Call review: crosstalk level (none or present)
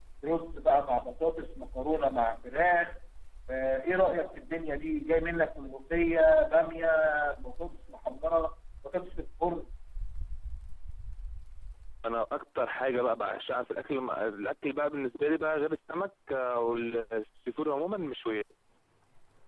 none